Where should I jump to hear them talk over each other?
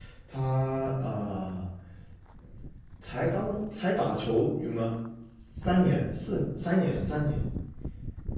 none

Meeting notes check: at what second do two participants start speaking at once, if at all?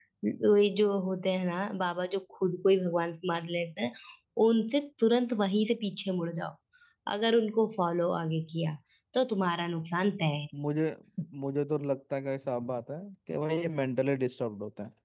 none

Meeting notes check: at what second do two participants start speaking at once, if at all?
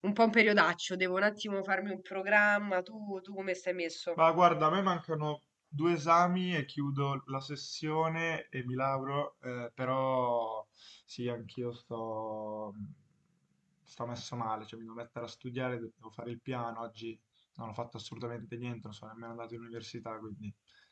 none

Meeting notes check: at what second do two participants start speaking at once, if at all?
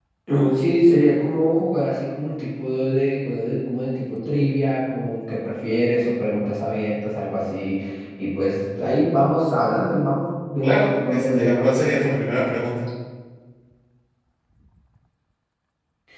10.6 s

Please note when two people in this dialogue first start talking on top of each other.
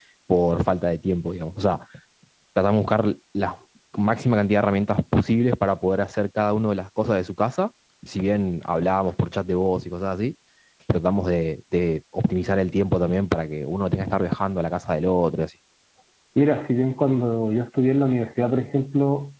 none

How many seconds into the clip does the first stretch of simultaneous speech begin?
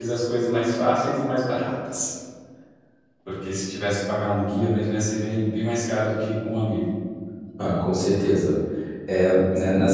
none

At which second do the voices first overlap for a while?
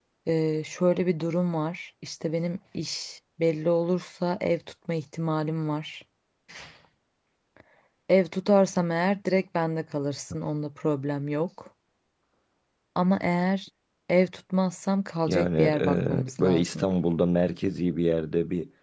15.3 s

